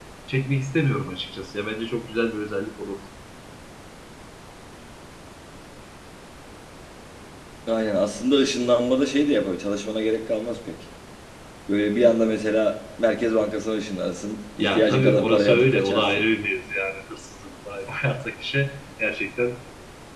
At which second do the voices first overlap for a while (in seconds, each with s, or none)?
14.6 s